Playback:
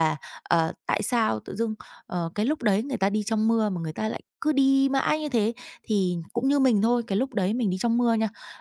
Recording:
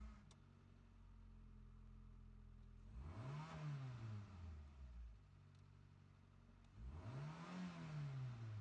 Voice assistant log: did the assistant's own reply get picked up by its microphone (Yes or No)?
No